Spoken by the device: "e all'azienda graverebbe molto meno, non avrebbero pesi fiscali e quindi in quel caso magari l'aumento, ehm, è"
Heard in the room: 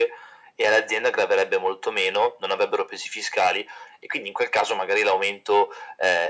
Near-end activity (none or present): none